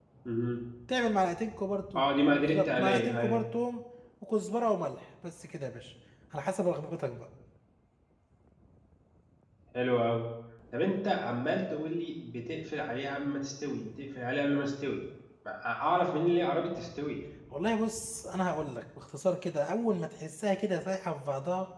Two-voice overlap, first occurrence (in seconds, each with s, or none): 1.9 s